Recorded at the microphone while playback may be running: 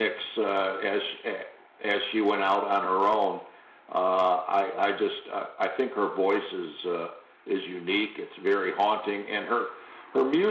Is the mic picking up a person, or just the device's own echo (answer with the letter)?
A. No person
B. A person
A